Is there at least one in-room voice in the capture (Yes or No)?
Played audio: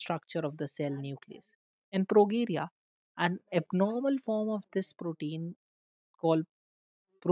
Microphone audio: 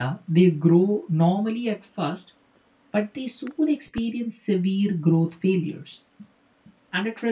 Yes